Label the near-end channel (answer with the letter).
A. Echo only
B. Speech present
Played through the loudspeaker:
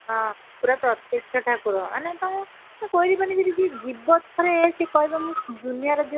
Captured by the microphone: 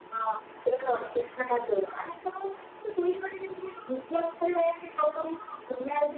A